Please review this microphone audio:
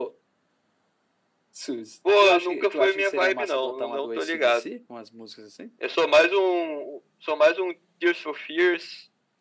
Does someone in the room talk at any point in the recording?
No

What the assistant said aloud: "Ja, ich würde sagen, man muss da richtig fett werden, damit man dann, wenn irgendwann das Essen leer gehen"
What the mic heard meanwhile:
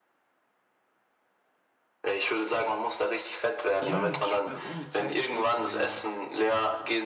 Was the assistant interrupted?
Yes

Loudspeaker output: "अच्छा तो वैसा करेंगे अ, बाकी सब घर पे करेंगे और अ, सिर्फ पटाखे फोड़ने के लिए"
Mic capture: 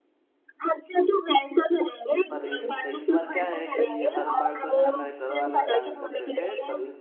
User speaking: Yes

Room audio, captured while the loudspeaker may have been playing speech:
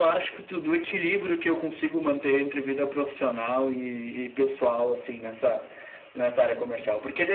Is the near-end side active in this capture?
No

